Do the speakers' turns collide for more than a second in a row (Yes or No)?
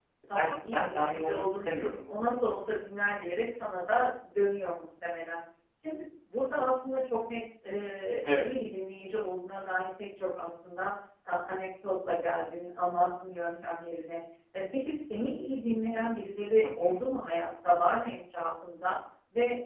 Yes